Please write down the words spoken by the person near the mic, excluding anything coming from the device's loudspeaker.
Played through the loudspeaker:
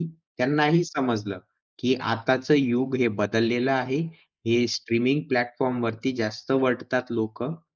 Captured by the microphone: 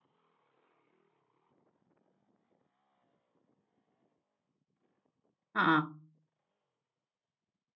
हां.

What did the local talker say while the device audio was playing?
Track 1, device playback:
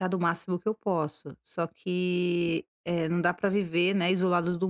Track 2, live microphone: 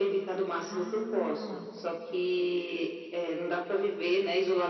Ah.

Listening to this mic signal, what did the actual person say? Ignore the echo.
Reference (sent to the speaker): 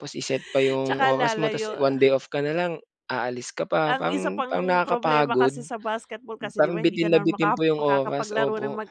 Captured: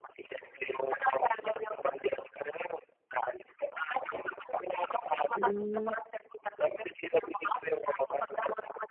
Hmm.

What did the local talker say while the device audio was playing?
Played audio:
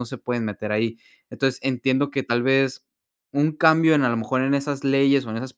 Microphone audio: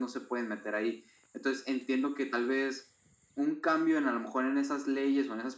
none

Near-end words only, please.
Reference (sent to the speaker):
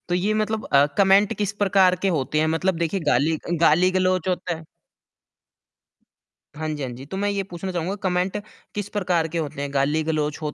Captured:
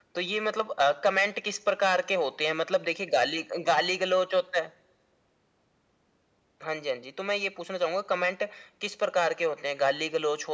none

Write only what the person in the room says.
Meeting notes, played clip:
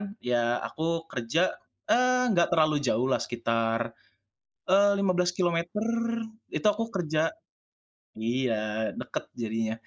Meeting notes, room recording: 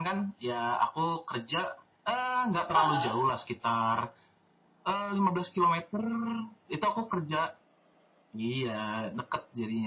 Heeh.

